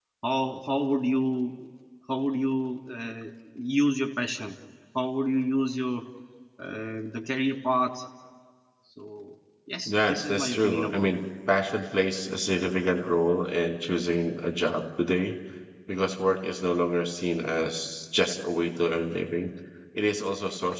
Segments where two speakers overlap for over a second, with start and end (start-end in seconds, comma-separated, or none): 9.9-11.2